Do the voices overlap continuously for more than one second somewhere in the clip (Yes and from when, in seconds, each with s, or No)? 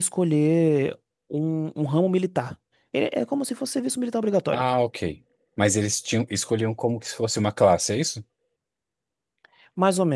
No